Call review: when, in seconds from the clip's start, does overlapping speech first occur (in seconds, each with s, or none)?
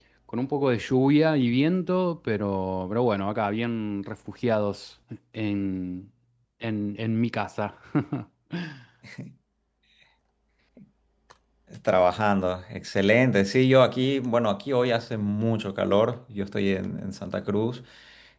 none